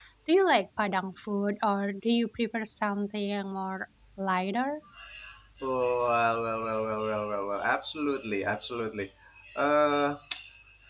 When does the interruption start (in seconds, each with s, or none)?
none